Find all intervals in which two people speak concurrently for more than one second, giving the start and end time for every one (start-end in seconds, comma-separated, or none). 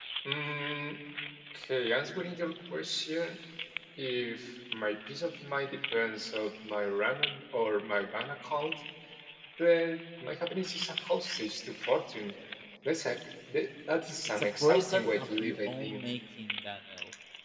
14.4-16.1